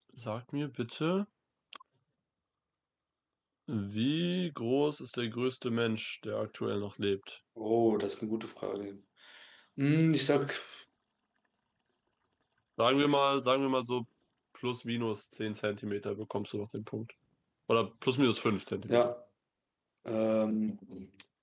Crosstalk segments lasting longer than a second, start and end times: none

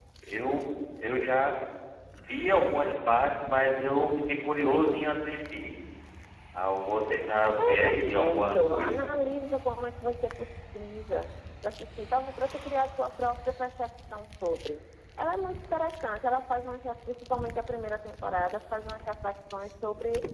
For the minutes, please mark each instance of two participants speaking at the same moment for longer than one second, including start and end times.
7.6-9.1

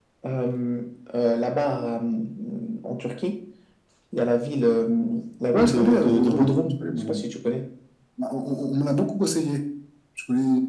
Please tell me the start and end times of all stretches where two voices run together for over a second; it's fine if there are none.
5.5-7.2

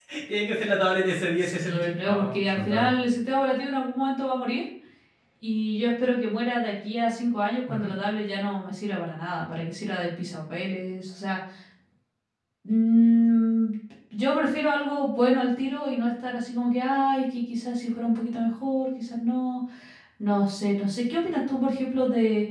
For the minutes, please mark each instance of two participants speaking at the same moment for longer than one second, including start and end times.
1.4-2.9

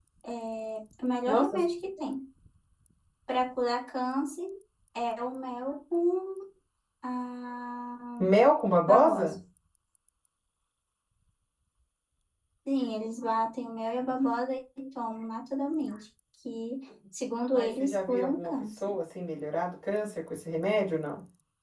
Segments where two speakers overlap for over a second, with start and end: 17.5-18.8

